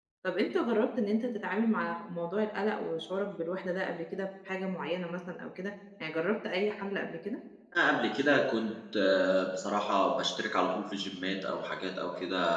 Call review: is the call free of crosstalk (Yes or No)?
Yes